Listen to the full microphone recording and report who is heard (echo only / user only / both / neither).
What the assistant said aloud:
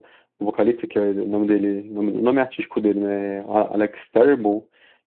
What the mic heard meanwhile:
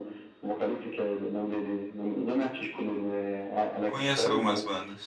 both